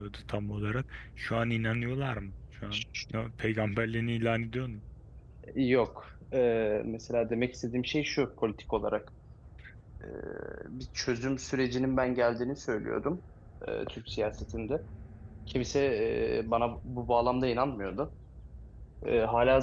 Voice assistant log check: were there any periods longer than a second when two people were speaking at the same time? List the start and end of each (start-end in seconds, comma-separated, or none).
none